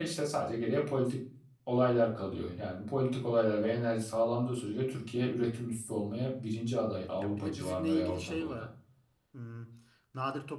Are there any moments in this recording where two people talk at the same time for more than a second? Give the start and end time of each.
7.2-8.6

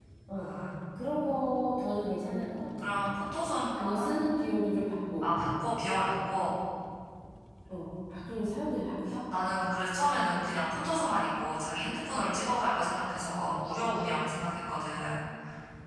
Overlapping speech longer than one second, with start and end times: none

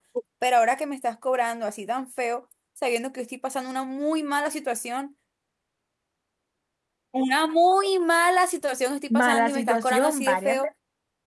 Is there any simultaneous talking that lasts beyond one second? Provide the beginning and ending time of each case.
9.1-10.7

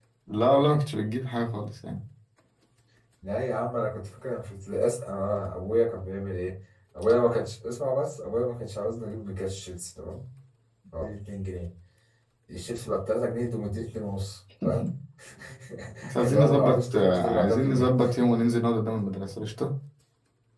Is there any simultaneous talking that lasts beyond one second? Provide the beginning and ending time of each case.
16.2-17.9

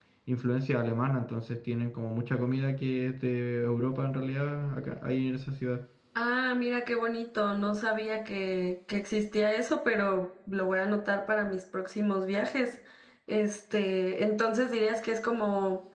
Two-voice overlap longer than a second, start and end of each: none

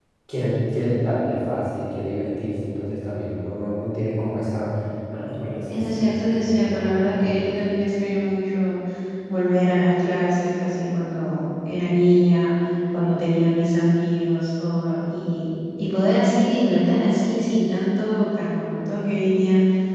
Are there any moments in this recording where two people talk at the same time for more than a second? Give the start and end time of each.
5.7-7.5

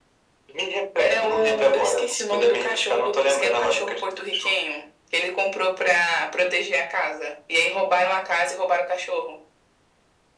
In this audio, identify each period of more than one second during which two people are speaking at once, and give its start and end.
1.0-4.6

